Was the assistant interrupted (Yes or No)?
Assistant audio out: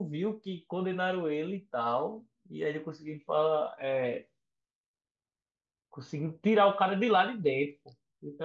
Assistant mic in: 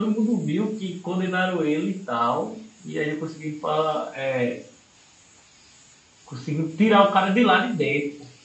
No